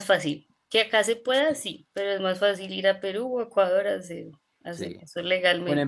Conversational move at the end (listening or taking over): taking over